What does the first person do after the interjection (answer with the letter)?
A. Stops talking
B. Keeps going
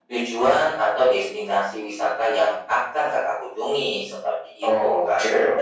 A